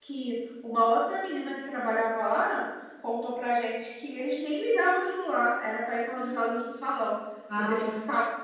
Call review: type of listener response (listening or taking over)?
listening